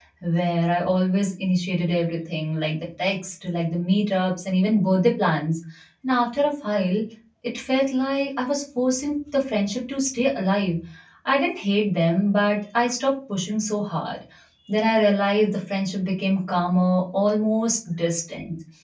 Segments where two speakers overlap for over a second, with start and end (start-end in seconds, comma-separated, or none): none